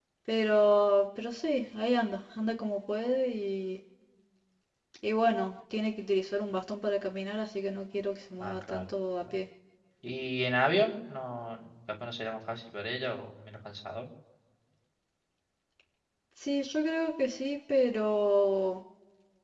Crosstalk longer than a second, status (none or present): none